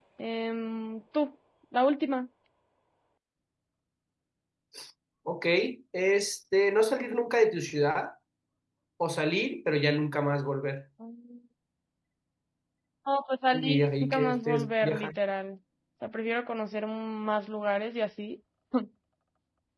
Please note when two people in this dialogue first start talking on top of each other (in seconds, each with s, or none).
13.5 s